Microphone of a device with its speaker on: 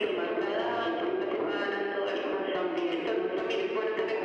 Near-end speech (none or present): none